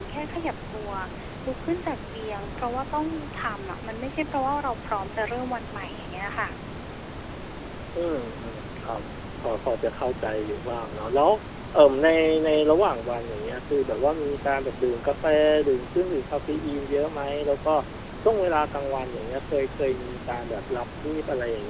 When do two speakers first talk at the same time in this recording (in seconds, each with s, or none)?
none